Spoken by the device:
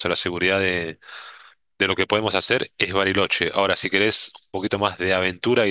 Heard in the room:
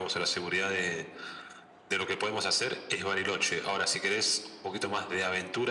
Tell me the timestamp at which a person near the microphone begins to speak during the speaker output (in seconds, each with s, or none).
none